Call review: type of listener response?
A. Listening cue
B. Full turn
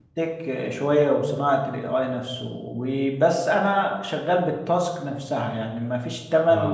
A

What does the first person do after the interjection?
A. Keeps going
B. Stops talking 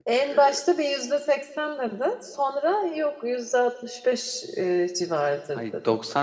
B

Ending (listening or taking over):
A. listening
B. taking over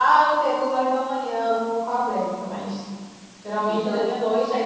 A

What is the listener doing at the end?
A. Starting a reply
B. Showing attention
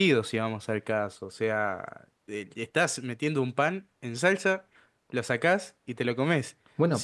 B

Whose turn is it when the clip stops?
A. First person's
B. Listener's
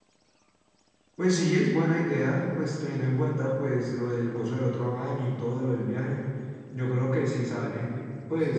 B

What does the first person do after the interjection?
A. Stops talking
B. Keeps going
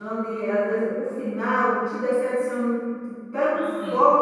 B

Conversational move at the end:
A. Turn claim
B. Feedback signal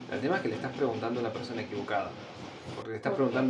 B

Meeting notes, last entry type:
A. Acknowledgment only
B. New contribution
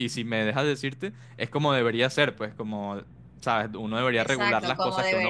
B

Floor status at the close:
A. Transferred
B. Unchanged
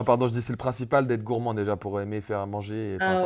A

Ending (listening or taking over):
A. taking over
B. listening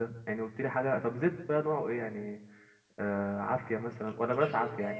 A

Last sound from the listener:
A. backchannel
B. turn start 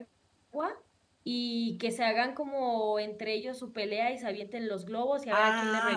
B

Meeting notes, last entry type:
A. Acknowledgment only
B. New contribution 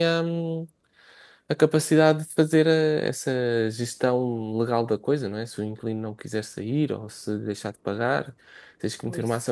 A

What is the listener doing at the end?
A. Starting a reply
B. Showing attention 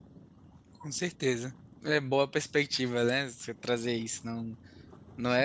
B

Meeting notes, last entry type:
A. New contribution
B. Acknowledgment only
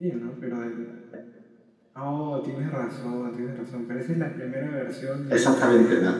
A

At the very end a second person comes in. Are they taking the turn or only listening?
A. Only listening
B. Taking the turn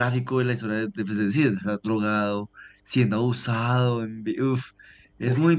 B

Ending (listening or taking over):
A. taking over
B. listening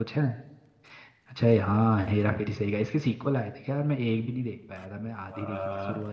A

